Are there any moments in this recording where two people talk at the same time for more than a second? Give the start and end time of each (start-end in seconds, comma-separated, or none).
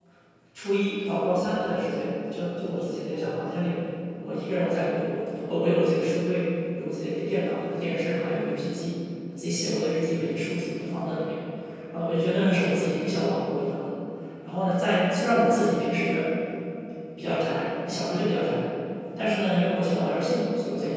none